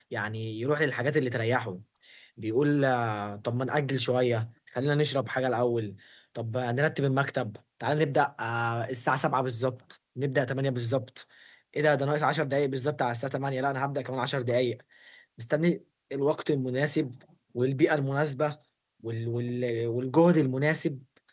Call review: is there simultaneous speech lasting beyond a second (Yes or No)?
No